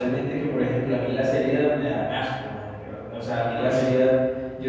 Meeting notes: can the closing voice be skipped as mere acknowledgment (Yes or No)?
Yes